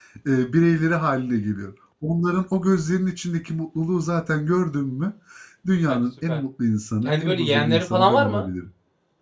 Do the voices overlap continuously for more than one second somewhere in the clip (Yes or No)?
Yes